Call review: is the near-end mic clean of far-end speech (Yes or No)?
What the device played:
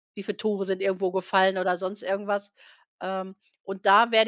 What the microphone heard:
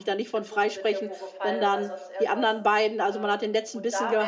No